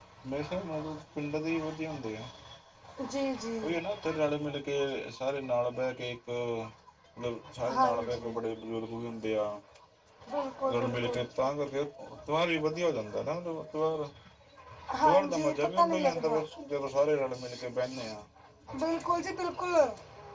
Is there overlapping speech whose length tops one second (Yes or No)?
Yes